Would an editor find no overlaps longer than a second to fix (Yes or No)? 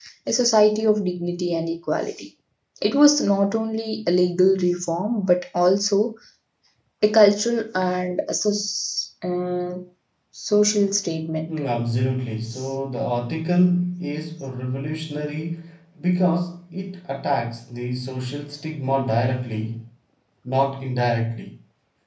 Yes